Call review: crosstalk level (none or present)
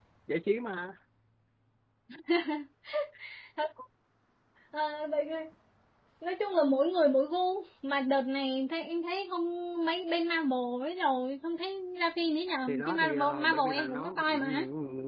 present